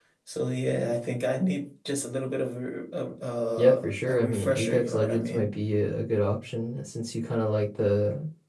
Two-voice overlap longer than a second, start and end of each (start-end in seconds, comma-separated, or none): 3.6-5.5